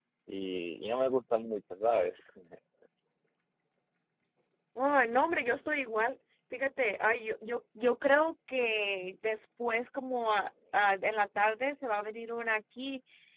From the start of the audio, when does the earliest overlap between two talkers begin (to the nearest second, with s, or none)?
none